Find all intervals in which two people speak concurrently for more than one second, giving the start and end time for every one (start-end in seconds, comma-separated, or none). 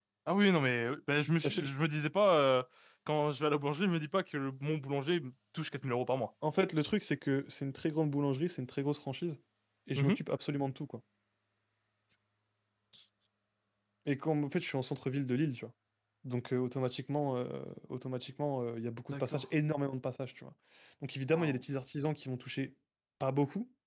none